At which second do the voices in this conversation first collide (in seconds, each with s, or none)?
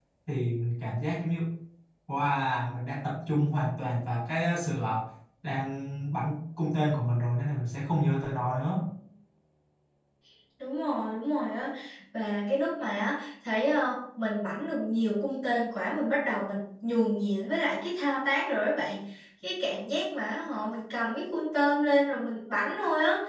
none